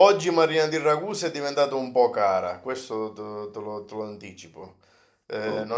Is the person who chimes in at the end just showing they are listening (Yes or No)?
Yes